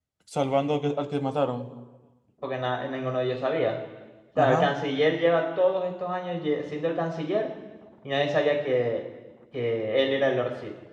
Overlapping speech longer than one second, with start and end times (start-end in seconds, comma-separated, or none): none